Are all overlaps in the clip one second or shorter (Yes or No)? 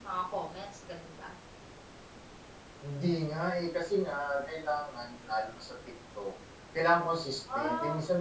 Yes